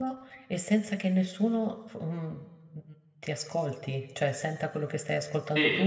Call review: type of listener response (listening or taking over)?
taking over